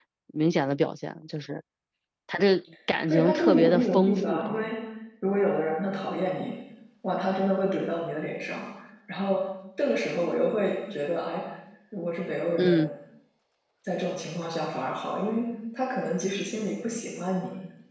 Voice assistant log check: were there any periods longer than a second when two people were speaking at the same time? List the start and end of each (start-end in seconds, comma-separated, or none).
3.1-4.7